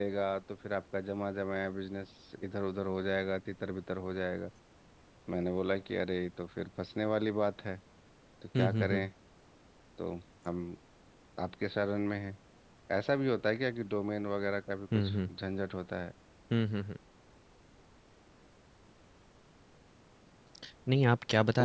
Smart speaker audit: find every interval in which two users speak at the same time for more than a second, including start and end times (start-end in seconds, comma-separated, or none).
none